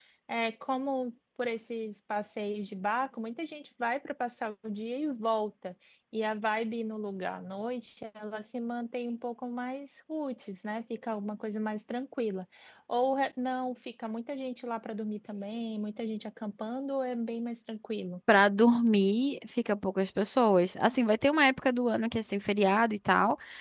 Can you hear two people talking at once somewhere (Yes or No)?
No